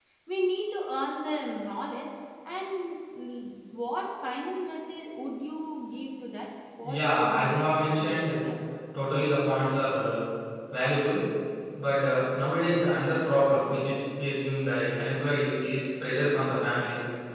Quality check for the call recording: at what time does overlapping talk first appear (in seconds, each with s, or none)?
6.8 s